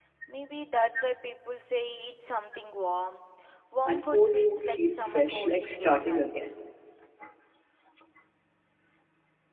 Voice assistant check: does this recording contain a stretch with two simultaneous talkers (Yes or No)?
Yes